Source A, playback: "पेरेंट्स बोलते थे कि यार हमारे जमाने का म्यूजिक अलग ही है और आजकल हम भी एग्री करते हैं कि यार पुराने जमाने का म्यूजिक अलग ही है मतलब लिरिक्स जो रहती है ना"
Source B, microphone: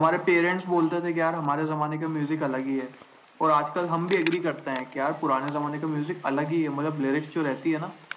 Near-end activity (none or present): none